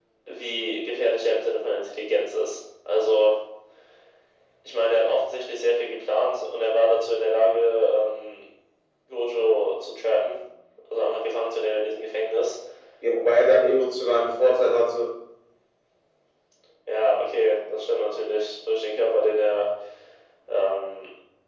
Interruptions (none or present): none